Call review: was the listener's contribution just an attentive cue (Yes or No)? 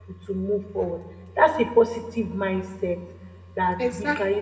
Yes